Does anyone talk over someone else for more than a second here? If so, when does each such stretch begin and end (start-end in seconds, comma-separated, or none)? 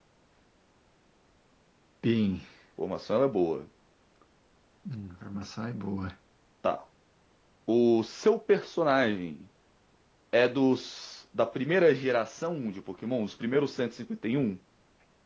none